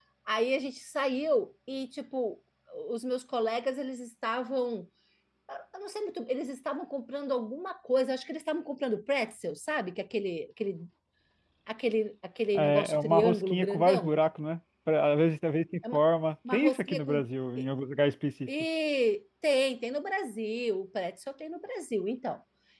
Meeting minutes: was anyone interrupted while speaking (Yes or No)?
Yes